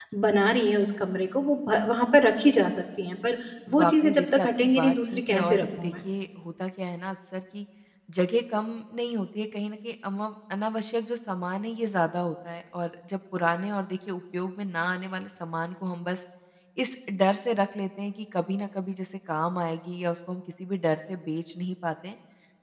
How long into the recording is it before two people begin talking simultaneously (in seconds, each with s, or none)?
3.7 s